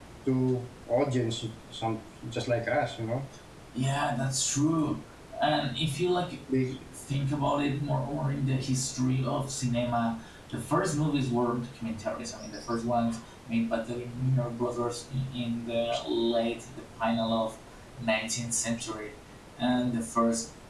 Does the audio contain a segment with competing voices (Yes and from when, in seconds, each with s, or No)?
No